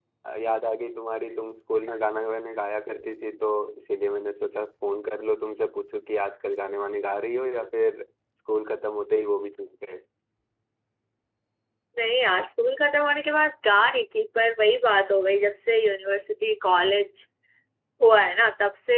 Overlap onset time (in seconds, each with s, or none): none